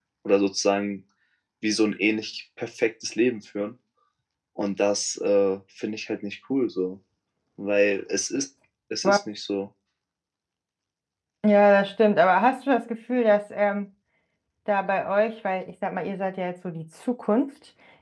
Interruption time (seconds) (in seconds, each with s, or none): none